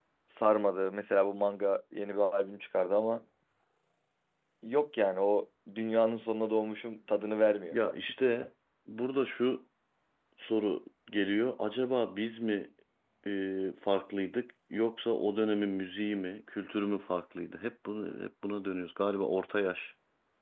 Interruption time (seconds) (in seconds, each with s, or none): none